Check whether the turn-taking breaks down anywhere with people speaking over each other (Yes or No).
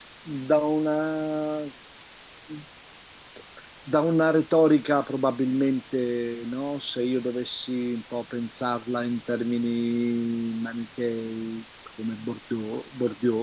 No